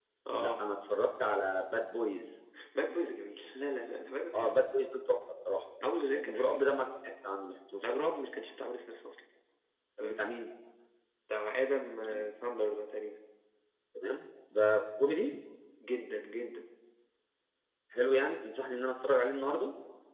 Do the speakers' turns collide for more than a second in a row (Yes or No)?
No